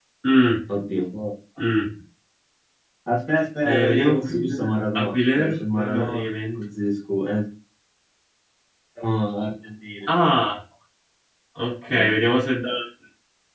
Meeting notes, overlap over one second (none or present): present